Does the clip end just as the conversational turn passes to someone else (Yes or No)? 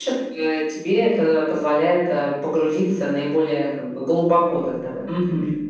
Yes